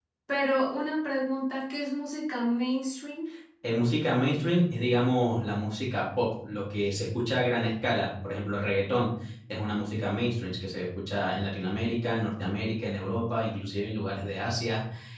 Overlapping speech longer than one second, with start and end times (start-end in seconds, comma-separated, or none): none